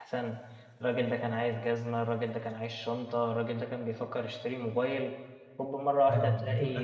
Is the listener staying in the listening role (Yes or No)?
No